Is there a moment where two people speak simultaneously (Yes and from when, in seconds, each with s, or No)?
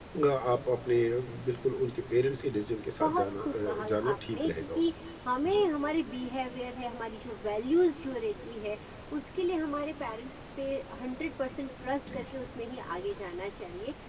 Yes, from 2.7 s